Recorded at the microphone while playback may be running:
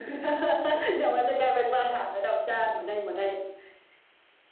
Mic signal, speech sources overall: echo only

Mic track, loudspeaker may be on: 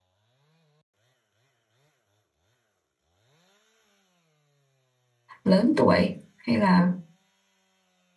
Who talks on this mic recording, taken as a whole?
user only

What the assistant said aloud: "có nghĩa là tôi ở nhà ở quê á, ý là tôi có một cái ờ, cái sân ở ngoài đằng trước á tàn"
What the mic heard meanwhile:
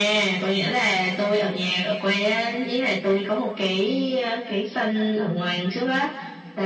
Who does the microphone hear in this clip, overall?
echo only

